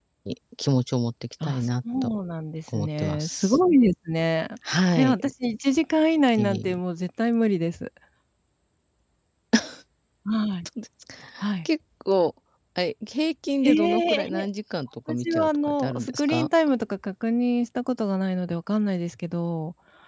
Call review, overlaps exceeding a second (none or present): present